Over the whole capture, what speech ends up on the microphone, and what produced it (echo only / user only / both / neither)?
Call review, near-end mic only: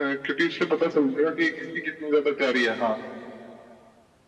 echo only